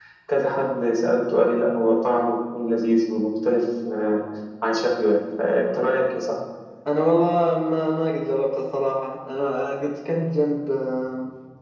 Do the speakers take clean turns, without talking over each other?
Yes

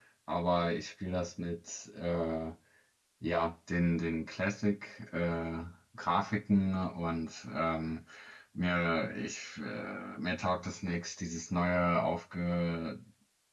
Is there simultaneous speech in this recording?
No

